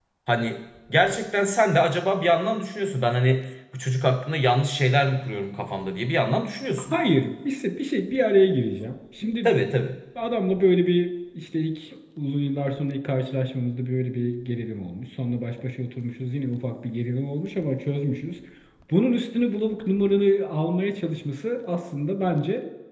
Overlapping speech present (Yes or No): No